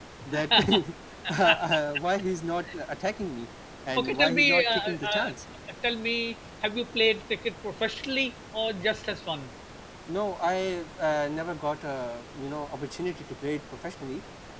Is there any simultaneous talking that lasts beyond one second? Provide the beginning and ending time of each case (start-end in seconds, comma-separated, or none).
4.0-5.3